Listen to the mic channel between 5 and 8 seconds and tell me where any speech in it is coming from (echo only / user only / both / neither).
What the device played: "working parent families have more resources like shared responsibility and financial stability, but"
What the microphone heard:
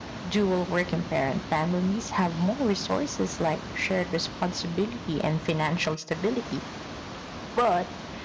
echo only